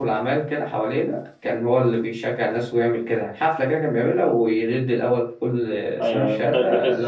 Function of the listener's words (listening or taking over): taking over